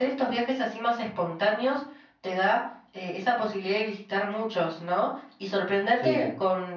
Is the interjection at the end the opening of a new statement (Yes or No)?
No